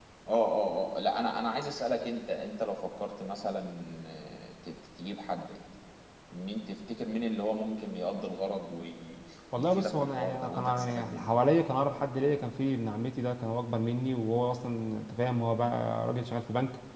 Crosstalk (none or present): present